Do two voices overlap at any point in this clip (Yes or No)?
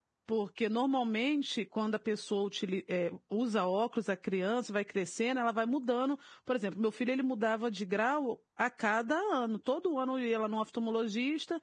No